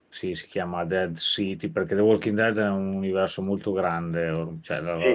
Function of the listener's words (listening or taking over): taking over